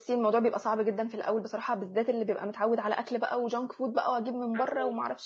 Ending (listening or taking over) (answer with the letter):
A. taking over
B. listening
B